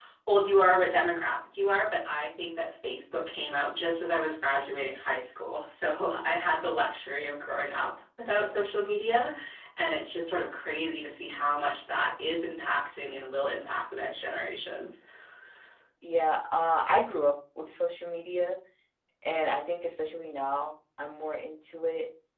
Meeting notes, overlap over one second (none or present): none